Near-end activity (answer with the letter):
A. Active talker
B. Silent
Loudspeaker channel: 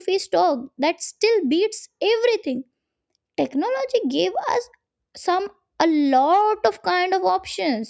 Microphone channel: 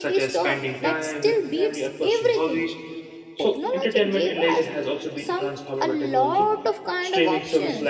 A